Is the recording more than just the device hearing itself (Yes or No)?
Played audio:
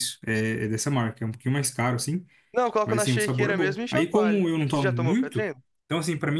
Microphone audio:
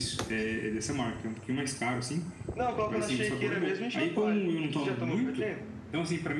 No